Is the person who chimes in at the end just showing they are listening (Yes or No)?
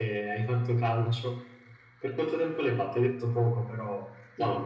No